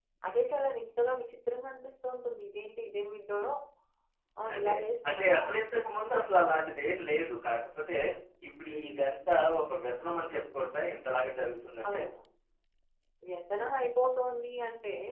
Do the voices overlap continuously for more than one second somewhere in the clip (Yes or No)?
No